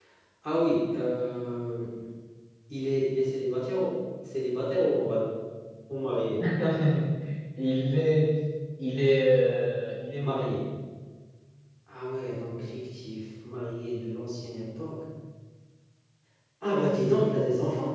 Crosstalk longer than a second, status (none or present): none